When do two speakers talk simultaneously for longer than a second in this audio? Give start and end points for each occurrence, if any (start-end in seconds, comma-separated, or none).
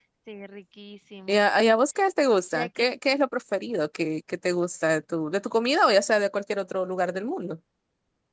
none